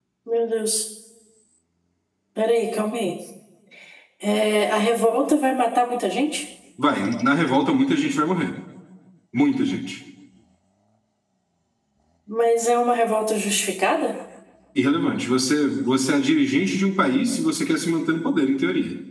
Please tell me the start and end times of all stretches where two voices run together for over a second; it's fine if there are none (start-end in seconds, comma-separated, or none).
none